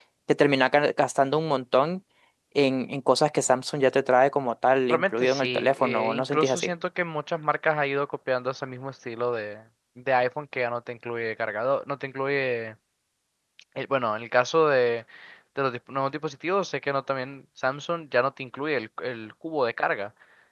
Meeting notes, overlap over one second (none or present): present